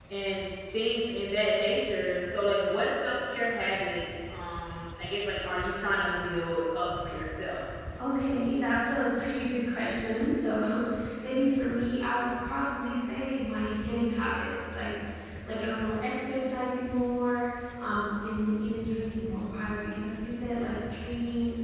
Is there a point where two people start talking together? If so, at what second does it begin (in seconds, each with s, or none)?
none